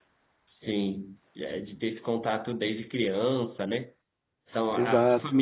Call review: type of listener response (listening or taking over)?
listening